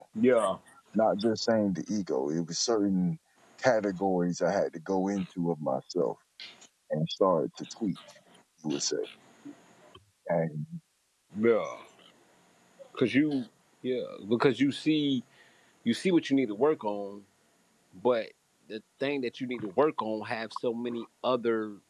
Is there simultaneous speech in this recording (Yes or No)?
No